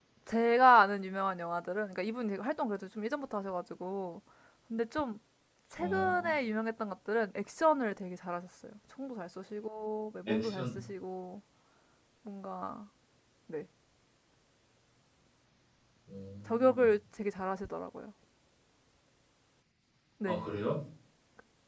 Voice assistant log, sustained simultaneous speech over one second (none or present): none